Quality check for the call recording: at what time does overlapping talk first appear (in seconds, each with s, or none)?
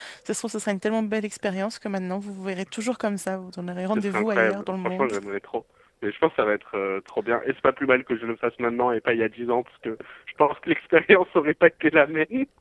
3.8 s